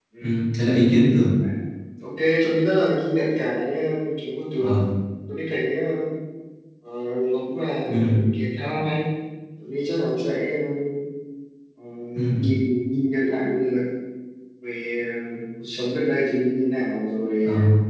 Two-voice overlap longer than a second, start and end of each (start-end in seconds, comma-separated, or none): none